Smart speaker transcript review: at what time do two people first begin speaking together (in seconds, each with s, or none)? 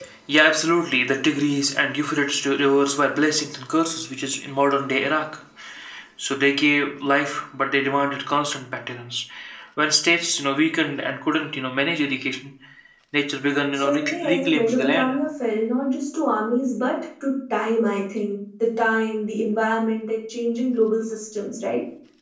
13.7 s